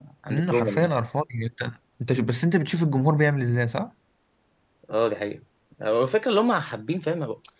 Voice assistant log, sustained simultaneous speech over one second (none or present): none